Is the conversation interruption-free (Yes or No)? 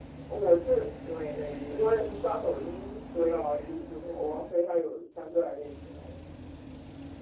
No